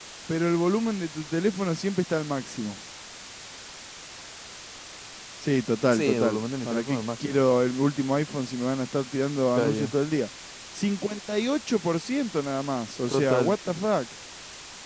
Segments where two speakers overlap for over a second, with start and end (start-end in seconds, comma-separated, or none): 5.9-7.4